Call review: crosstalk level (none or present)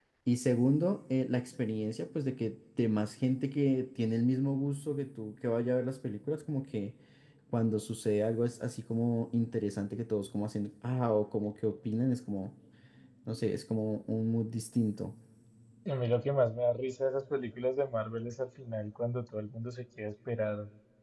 none